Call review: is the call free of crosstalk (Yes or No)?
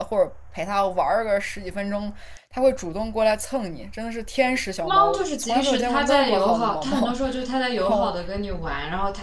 No